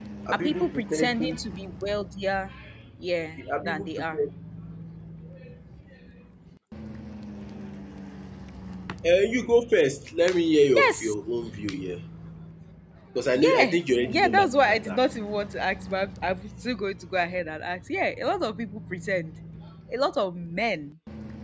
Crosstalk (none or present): present